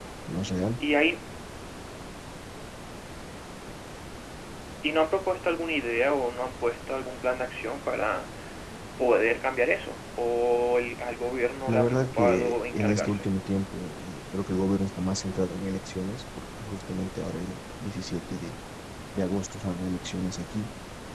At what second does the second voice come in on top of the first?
12 s

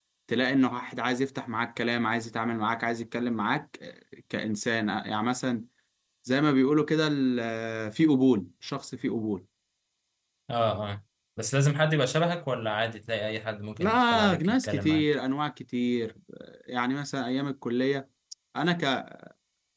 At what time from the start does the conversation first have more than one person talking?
14 s

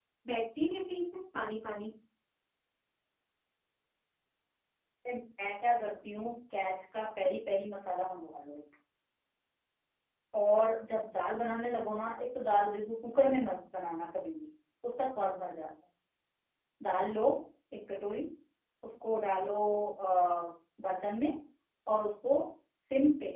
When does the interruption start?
none

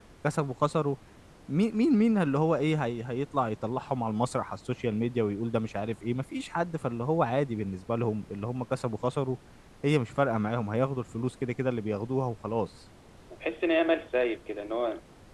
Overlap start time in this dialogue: none

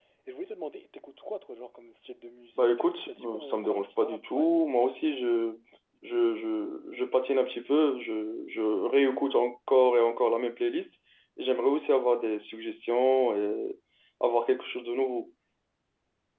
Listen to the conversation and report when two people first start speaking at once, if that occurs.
3 s

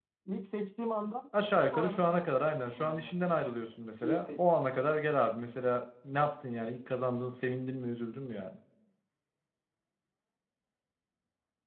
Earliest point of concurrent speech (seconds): 2 s

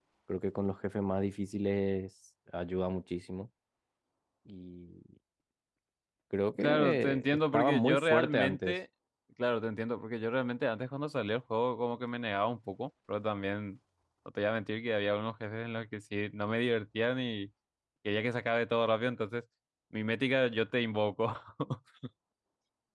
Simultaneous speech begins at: 7 s

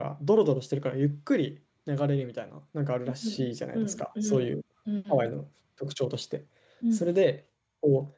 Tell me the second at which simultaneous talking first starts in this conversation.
3 s

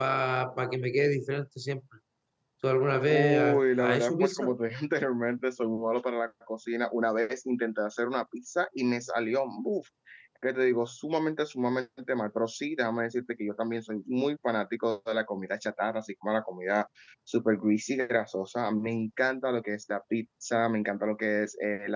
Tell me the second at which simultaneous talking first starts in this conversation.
3 s

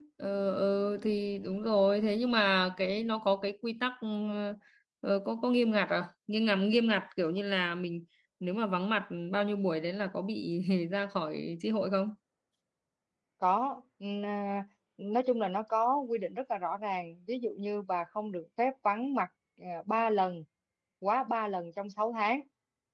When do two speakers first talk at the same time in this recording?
none

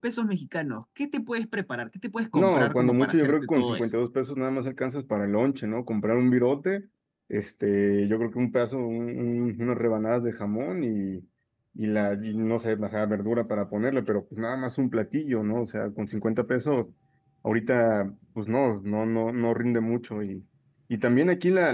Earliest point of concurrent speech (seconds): 2 s

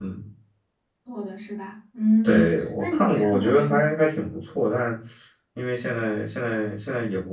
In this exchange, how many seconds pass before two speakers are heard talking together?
2 s

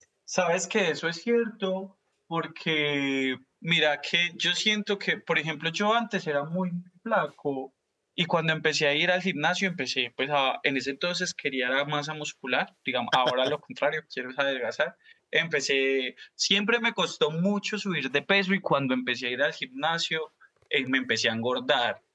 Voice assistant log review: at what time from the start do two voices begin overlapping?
none

